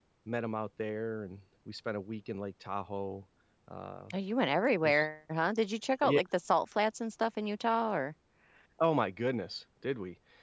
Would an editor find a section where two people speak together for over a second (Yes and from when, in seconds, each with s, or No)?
No